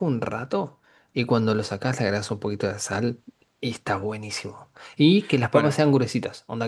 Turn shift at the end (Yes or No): No